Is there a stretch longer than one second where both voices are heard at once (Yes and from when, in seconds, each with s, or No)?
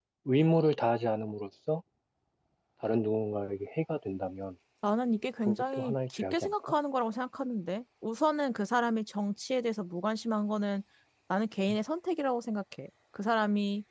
Yes, from 5.5 s